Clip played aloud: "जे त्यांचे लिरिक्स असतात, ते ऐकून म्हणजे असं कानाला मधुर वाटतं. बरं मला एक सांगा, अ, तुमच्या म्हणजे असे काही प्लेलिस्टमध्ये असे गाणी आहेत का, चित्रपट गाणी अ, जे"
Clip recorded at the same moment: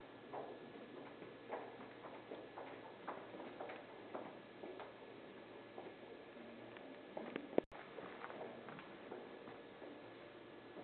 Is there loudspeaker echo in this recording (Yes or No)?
No